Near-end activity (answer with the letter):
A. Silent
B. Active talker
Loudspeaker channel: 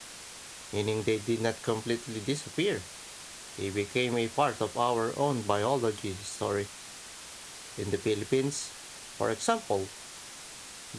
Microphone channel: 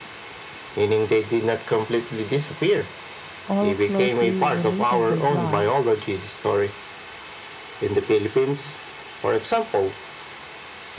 B